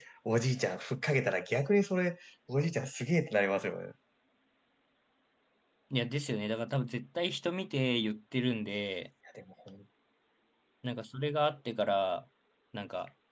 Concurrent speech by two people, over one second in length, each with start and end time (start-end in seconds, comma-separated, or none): none